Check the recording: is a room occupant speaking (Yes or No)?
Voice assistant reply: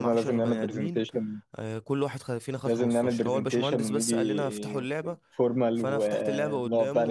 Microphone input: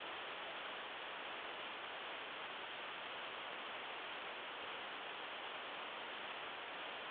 No